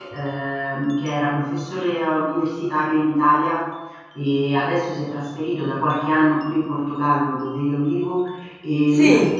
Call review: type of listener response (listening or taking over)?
listening